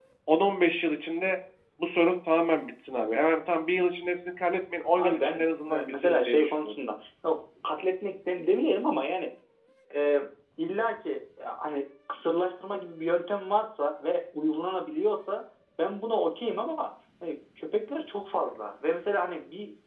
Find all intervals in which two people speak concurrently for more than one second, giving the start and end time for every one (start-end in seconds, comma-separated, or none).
5.0-6.7